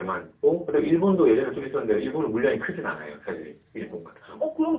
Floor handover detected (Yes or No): Yes